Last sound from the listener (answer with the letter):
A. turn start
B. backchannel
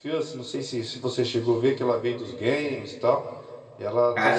B